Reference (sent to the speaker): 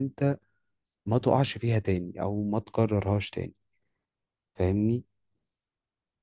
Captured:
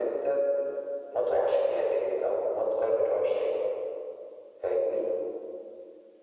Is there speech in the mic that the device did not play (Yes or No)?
No